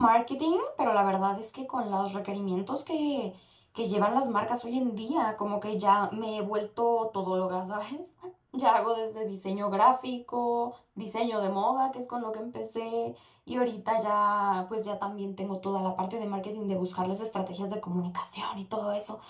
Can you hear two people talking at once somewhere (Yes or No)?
No